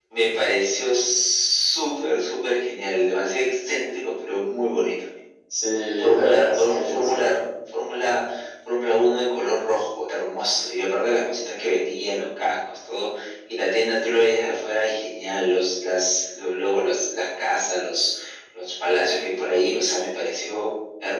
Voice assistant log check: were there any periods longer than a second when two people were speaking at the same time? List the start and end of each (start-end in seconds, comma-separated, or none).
6.0-7.4